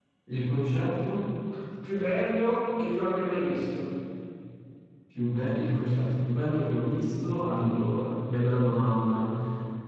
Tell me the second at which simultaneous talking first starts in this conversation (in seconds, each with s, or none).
none